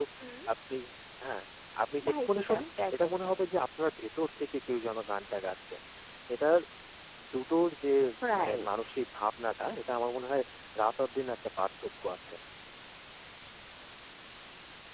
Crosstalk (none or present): present